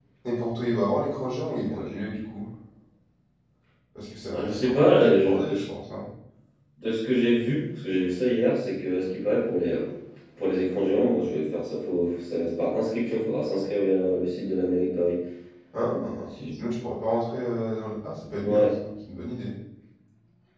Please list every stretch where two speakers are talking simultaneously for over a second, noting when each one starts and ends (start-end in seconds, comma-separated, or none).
4.3-5.6